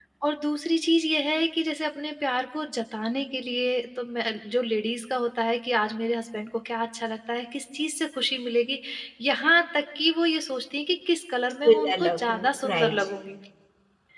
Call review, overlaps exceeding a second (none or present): present